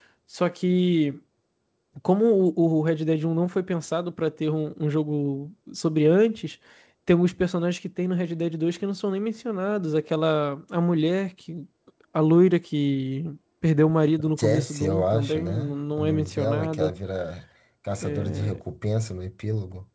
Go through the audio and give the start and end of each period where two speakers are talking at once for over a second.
14.4-16.9

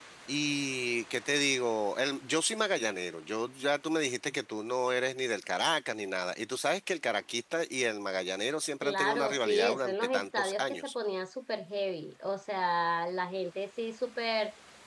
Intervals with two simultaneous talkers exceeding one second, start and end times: 8.8-10.9

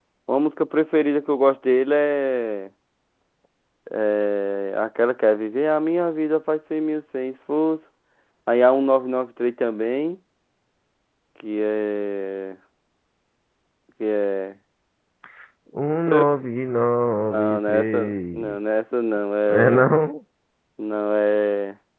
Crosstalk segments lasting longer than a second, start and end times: 17.2-18.6

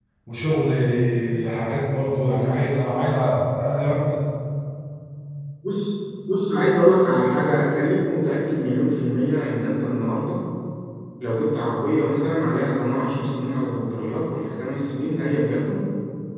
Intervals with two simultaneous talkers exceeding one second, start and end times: none

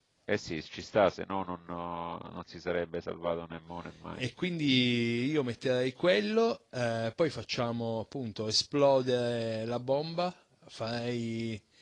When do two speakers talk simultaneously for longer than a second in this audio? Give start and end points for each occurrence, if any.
none

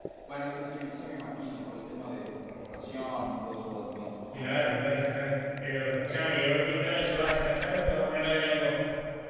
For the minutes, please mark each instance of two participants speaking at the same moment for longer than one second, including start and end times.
none

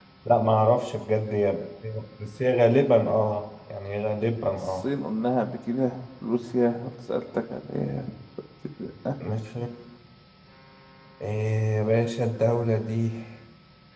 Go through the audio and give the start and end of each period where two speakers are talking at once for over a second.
none

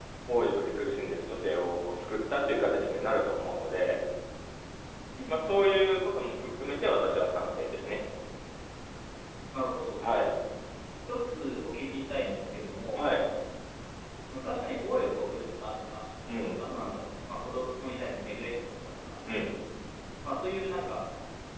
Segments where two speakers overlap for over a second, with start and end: none

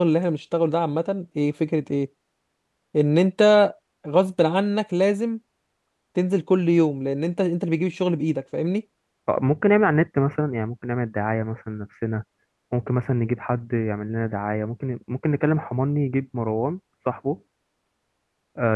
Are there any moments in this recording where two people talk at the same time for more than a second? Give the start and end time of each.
none

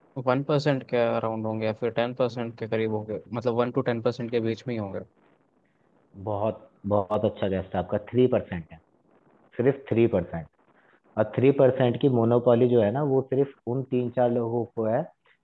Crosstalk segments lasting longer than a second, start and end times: none

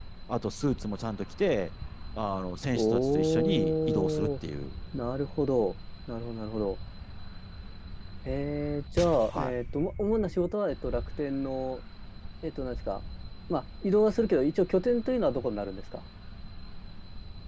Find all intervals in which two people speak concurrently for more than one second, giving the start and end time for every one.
2.7-4.3

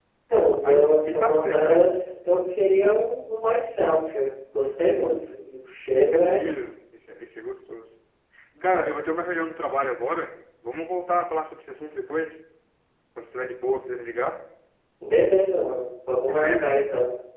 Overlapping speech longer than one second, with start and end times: 0.6-1.9

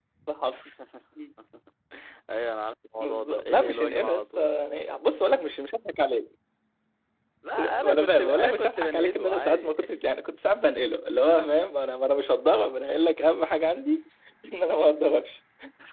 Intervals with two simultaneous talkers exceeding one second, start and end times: 3.0-4.5, 7.6-9.8

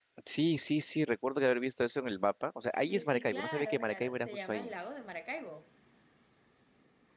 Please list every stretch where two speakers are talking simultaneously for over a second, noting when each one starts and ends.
2.7-4.7

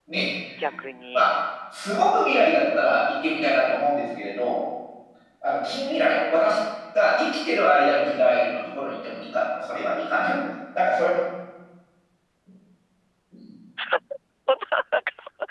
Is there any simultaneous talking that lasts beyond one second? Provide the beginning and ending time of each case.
none

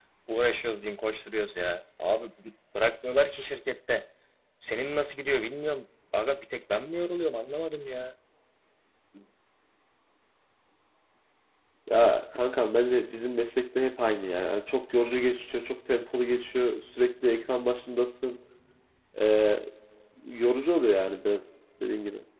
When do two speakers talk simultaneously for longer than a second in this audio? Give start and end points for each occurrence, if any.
none

